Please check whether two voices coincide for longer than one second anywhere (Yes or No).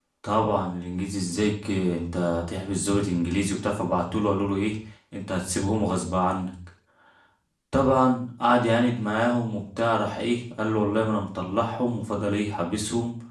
No